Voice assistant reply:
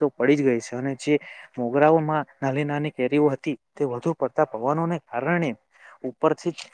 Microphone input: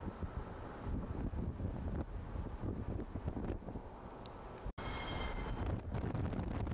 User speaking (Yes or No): No